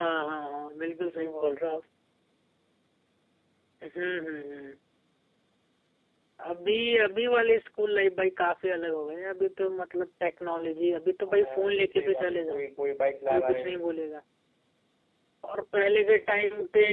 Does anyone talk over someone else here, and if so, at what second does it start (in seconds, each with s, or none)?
11.3 s